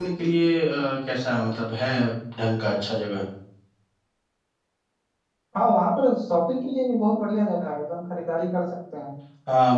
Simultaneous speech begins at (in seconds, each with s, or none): none